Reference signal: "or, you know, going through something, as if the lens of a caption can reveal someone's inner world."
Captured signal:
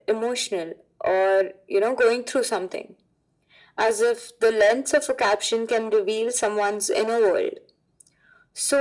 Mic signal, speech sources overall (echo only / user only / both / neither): echo only